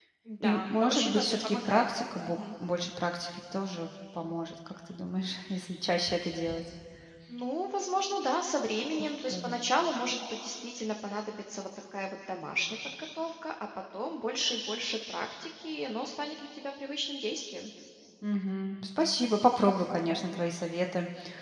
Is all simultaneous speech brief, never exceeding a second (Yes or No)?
No